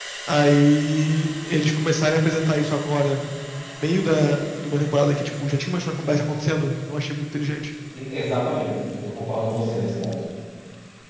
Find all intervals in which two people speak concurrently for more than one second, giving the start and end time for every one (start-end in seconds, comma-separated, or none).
none